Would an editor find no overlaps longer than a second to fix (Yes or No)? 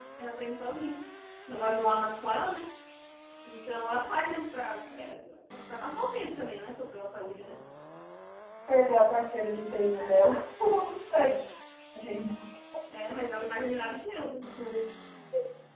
Yes